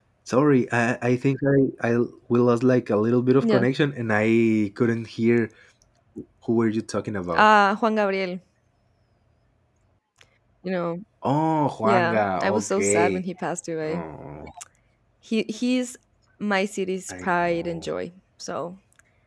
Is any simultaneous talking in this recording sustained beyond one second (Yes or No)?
Yes